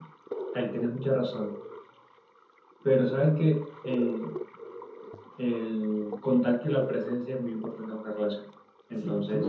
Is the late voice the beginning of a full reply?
No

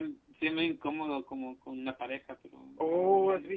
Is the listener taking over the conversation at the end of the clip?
Yes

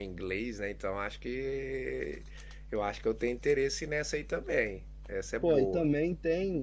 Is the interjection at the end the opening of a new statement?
Yes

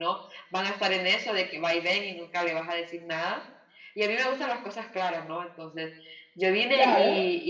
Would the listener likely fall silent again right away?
Yes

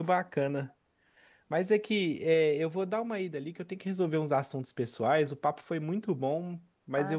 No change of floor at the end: Yes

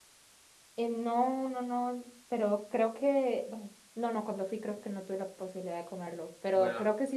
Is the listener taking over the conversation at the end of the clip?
No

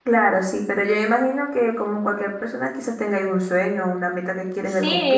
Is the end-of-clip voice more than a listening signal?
Yes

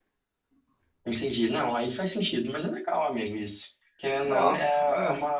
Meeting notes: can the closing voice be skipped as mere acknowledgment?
Yes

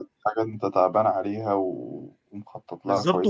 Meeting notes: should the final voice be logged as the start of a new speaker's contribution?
Yes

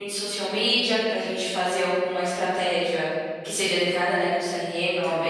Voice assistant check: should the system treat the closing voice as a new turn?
Yes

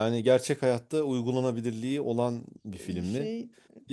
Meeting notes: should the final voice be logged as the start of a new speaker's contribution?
No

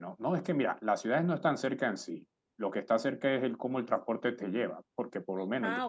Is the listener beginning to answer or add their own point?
No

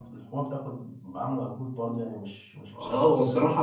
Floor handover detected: Yes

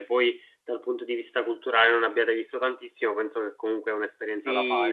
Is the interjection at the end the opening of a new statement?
Yes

